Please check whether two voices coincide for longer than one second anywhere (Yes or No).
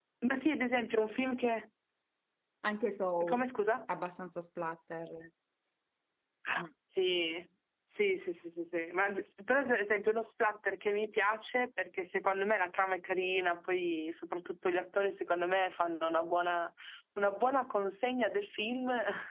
No